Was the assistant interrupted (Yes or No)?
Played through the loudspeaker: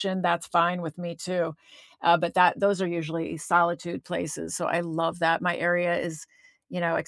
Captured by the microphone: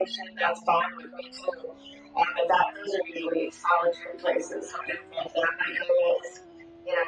No